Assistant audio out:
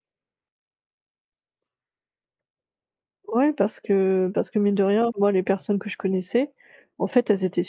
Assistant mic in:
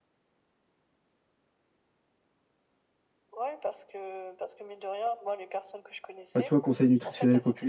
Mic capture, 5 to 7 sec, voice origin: both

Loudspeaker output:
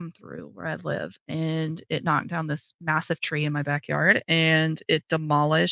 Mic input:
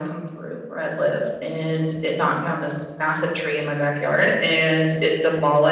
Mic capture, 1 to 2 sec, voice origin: echo only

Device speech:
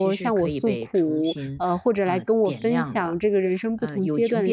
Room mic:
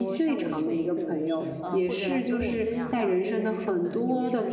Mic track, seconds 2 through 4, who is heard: both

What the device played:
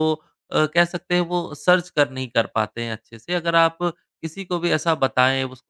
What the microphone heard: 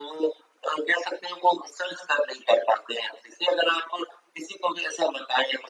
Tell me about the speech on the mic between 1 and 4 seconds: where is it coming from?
echo only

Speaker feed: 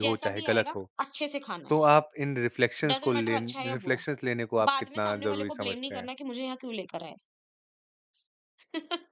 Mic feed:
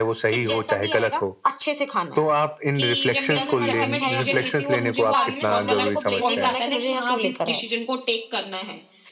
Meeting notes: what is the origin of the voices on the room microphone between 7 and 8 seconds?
both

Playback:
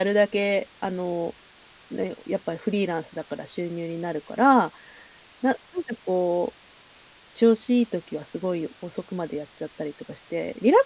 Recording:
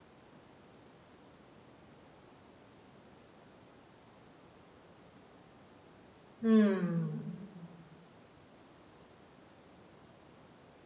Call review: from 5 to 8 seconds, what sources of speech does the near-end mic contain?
user only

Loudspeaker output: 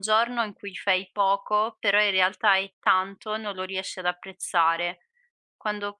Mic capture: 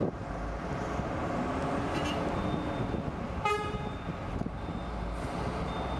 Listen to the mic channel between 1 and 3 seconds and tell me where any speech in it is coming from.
neither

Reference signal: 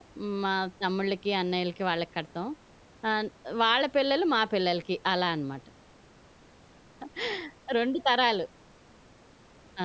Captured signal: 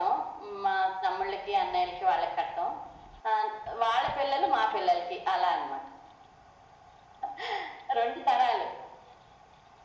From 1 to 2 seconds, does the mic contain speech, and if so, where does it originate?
echo only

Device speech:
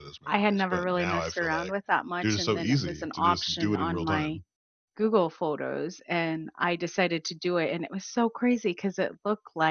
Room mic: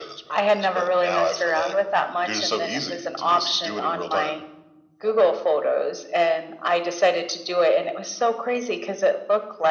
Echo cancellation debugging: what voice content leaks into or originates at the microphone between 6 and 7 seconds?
echo only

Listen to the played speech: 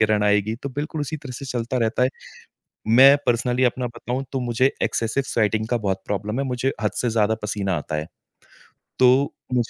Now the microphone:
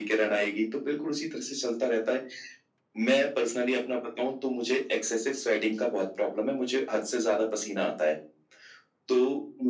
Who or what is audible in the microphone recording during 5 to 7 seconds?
echo only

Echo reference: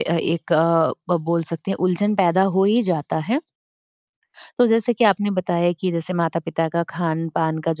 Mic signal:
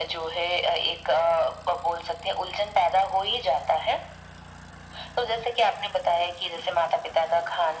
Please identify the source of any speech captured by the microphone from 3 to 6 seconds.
echo only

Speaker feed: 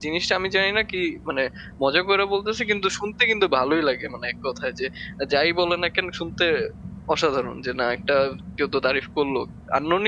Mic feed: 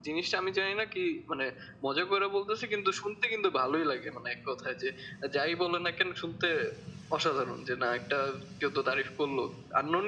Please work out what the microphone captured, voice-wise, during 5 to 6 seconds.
echo only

